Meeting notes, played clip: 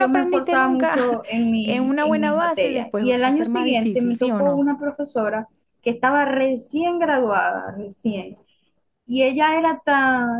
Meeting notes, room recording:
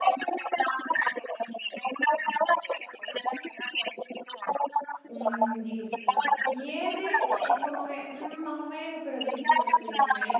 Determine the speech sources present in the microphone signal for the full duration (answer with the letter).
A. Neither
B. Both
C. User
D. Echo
B